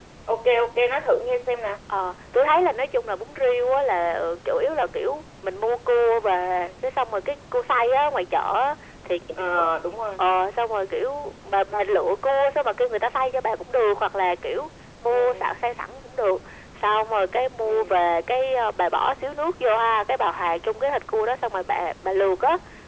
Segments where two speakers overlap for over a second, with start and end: none

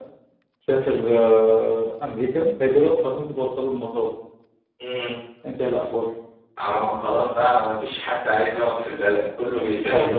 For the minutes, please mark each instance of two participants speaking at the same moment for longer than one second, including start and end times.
none

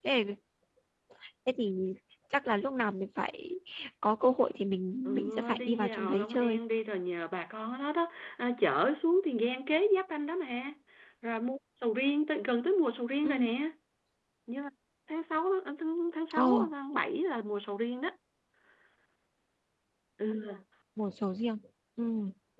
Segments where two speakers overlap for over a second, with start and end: 5.0-6.6

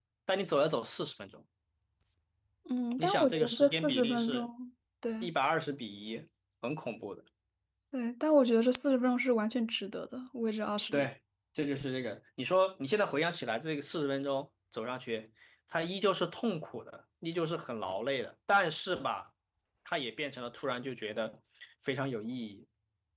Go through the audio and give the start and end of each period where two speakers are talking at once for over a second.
3.0-4.5

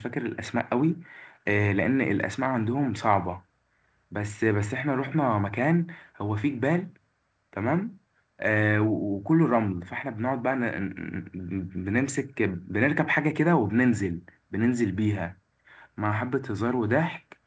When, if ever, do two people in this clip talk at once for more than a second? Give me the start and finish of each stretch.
none

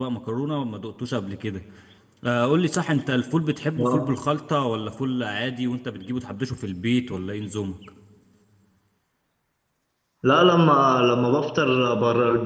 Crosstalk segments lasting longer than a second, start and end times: none

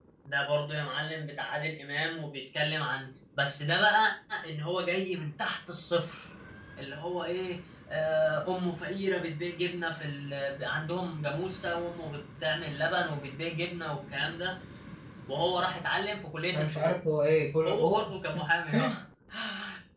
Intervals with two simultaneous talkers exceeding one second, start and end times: none

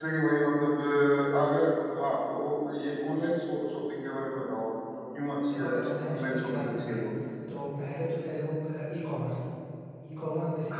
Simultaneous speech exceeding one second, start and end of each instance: 5.5-7.0

